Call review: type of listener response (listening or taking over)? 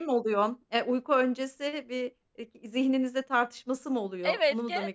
taking over